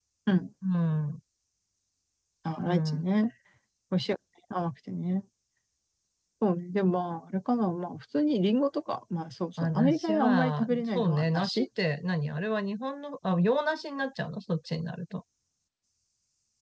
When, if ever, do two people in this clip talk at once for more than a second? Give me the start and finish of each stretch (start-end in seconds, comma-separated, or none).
9.6-11.7